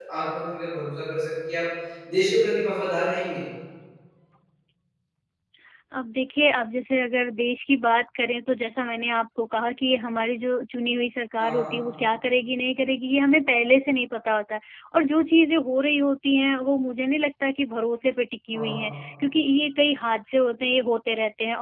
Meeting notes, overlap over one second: none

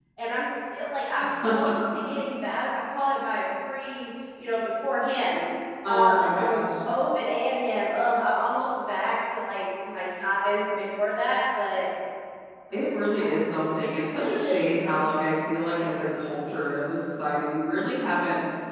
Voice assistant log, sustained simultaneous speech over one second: present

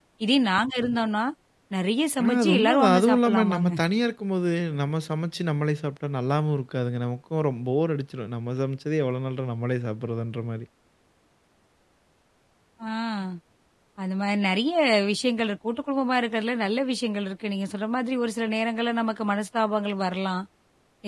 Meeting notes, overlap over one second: present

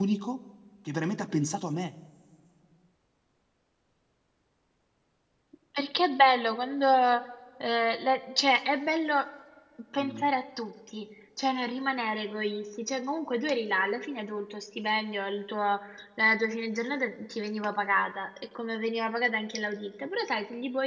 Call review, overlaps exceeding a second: none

